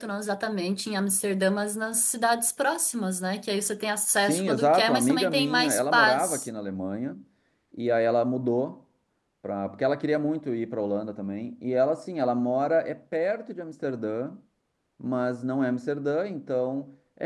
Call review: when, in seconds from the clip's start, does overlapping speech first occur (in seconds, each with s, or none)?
4.2 s